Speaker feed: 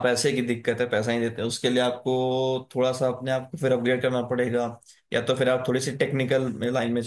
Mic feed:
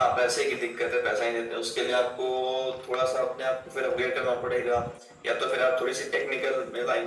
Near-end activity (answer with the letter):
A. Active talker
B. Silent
B